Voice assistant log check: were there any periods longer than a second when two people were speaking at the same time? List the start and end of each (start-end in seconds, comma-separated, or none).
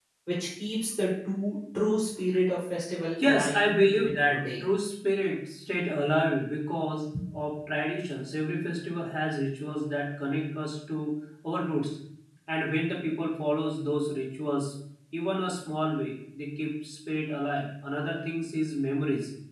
3.2-4.6